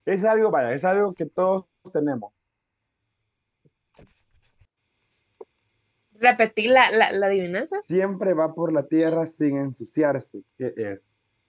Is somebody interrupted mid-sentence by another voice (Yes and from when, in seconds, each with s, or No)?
No